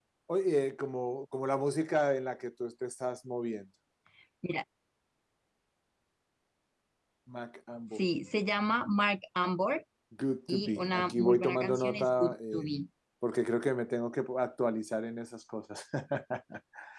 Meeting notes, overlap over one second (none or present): present